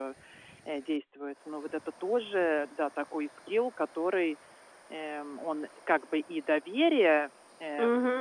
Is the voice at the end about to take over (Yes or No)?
Yes